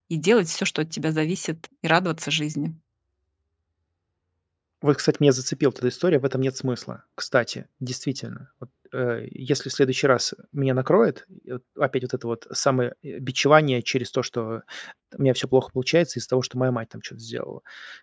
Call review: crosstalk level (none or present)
none